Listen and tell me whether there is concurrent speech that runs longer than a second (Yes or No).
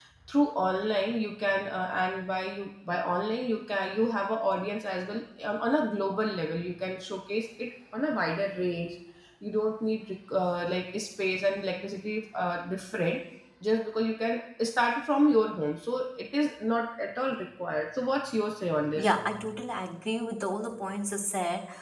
No